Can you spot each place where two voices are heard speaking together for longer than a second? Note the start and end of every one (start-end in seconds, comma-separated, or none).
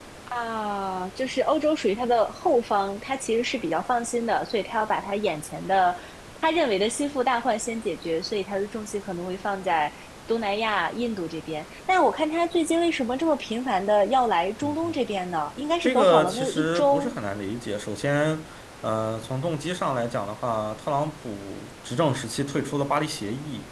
15.8-17.1